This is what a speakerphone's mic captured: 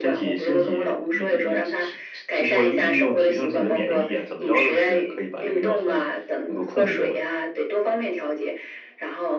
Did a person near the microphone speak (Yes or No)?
Yes